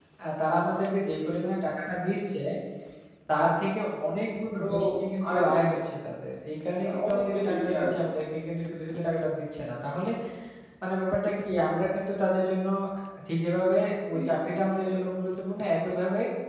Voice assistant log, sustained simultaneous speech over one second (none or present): present